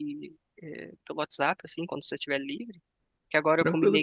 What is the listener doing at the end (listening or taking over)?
listening